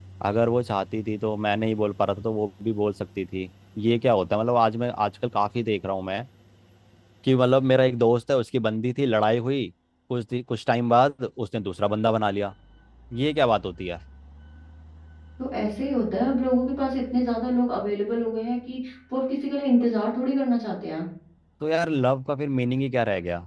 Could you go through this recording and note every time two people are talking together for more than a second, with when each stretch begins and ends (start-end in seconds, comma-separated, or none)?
none